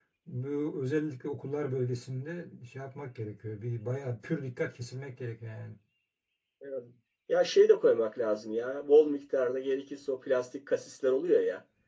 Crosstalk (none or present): none